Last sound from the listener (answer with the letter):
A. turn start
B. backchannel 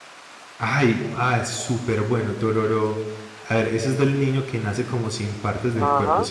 A